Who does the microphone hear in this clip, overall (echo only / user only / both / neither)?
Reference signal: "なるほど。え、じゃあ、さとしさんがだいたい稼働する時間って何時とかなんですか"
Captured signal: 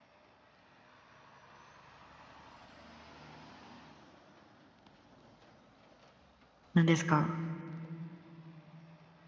user only